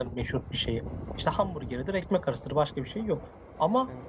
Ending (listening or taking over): listening